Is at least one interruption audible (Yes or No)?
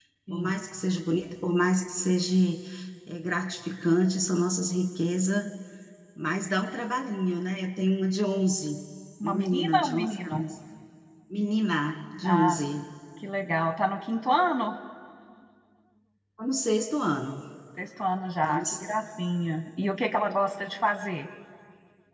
Yes